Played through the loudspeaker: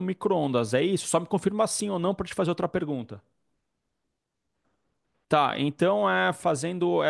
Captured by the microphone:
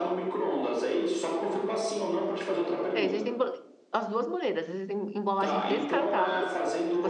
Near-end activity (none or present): present